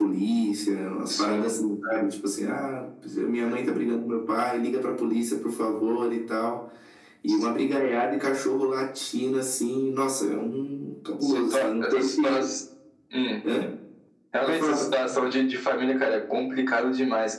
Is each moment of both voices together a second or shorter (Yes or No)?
No